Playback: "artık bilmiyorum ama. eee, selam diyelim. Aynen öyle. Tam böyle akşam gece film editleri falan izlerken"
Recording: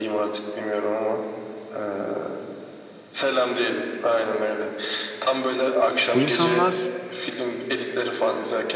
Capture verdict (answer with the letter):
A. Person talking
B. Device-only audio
A